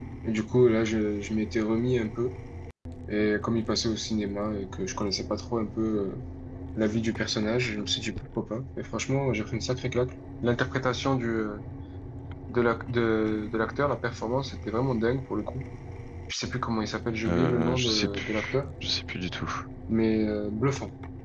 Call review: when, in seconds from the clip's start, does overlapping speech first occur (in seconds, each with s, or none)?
17.2 s